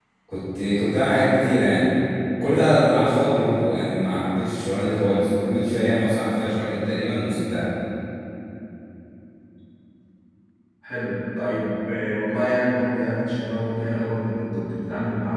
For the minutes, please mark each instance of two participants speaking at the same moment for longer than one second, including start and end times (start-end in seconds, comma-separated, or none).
none